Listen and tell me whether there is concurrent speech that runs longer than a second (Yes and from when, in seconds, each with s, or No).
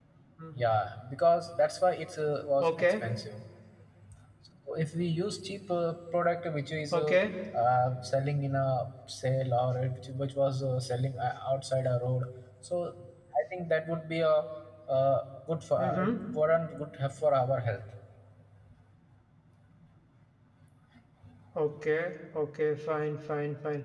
No